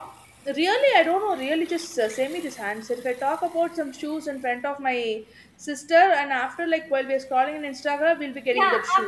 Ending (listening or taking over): taking over